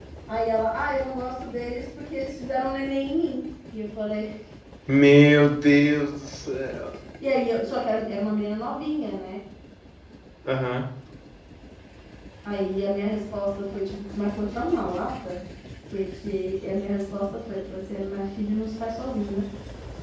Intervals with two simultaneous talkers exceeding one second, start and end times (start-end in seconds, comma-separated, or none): none